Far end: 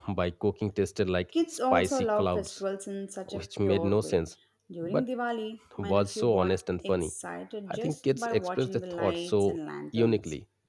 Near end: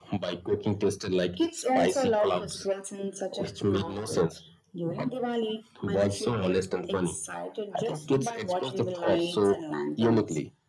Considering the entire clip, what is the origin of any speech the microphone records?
echo only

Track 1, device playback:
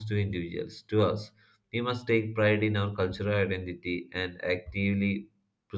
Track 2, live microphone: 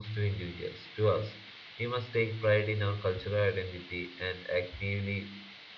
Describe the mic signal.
echo only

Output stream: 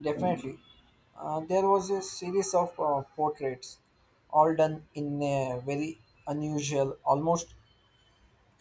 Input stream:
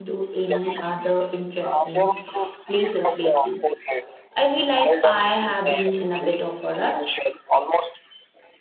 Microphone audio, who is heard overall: both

